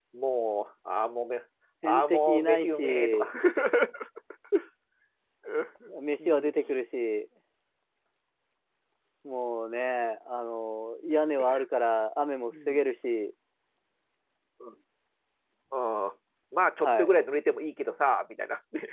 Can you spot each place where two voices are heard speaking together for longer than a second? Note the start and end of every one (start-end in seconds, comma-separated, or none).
1.8-3.3